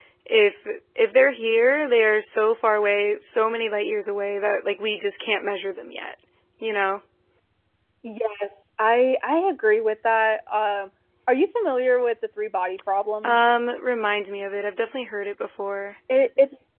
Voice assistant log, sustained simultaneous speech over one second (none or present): none